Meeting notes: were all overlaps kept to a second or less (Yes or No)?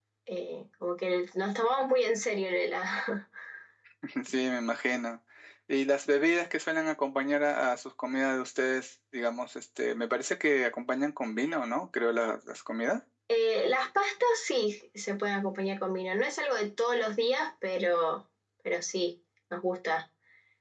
Yes